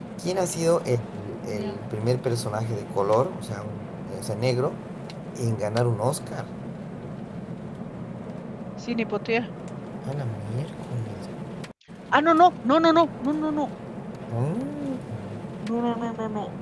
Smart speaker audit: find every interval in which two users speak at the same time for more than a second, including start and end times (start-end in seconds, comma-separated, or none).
none